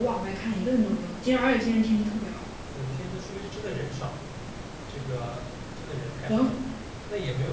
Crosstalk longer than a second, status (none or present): none